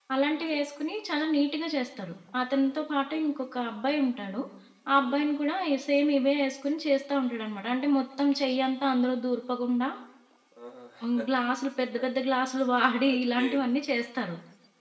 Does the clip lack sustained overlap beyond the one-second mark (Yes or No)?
Yes